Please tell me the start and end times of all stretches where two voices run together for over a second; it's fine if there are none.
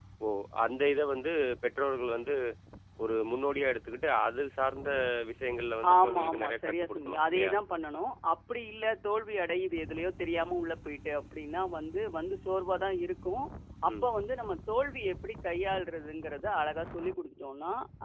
6.0-7.5

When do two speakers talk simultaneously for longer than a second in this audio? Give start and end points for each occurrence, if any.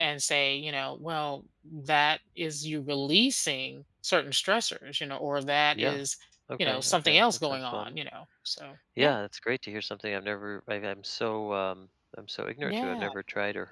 6.6-7.9

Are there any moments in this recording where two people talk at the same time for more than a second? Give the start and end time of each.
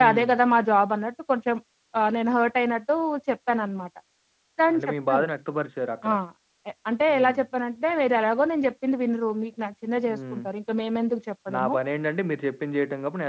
none

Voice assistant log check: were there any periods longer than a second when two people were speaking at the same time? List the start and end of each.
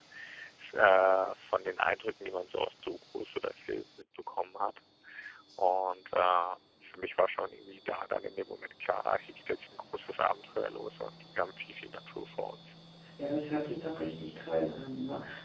none

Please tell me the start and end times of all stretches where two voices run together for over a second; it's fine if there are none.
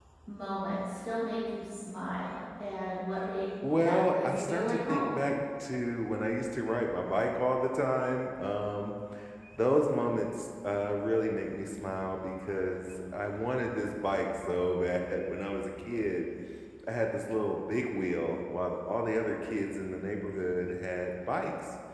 3.8-5.2

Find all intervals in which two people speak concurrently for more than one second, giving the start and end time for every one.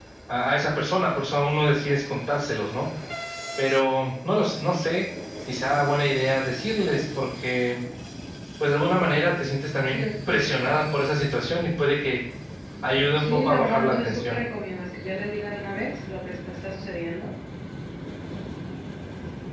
13.2-14.4

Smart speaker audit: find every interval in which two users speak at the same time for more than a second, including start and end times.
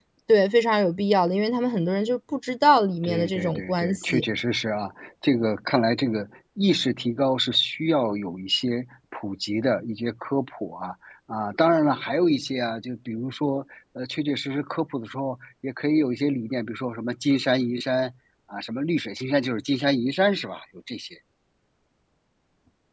3.0-4.2

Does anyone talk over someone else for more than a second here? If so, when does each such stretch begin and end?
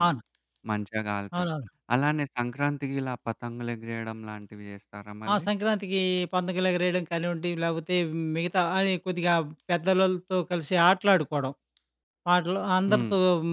none

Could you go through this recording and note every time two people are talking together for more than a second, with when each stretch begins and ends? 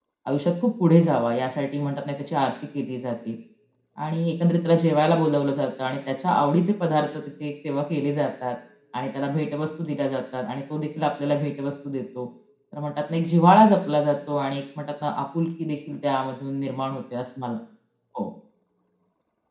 none

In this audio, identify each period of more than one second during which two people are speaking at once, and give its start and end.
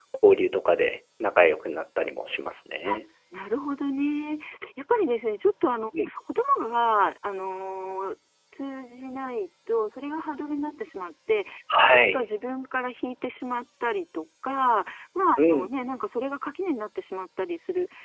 none

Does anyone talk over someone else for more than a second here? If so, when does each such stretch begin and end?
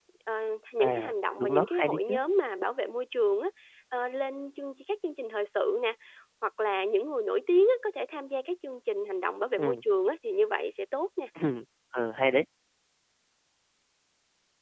0.8-2.2

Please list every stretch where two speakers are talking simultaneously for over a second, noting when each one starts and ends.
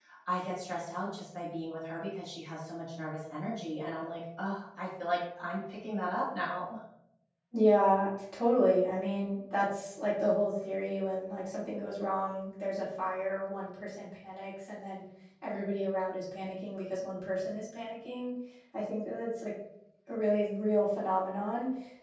none

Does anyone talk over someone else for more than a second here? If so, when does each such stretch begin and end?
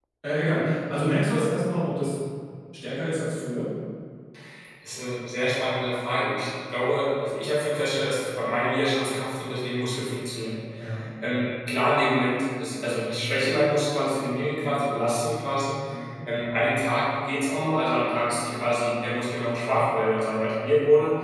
none

